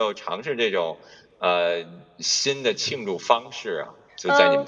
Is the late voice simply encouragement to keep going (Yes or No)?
No